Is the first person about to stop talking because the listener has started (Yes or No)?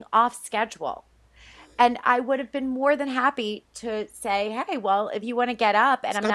Yes